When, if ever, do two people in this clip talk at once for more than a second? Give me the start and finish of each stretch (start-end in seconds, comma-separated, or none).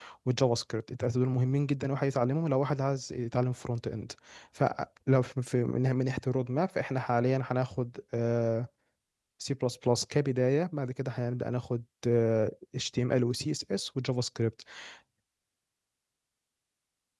none